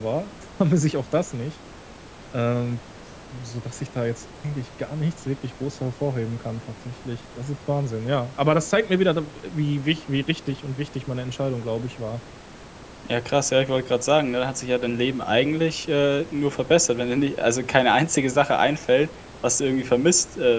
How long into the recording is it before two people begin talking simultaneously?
none

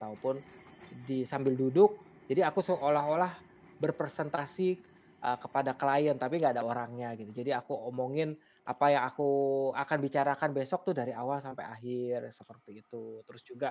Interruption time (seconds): none

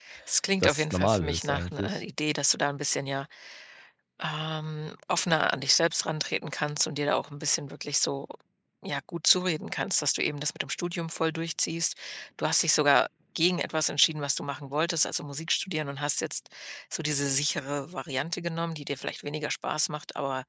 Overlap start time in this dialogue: 0.6 s

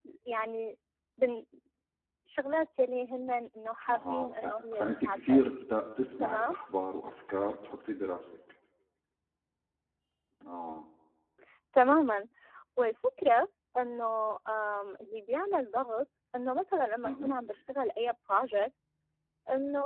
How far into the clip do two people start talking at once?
3.9 s

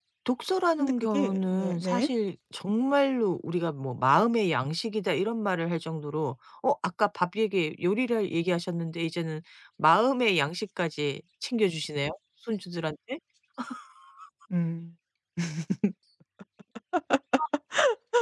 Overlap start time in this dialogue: 0.8 s

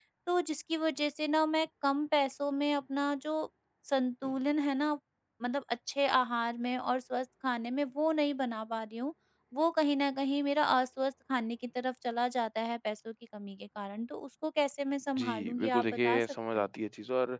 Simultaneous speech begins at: 15.2 s

